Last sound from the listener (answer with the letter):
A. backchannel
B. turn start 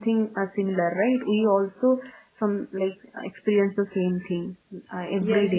B